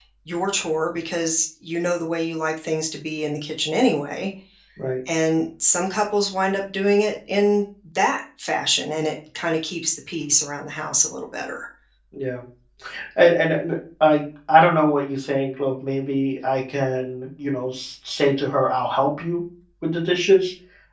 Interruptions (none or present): none